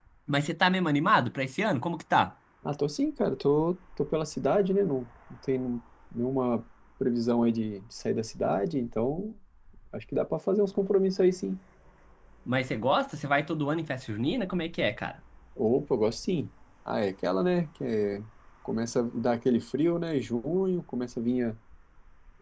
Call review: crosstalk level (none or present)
none